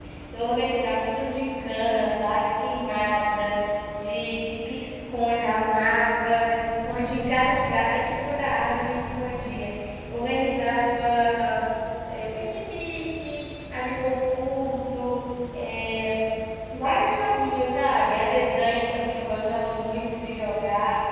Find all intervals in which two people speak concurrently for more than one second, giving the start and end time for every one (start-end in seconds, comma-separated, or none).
none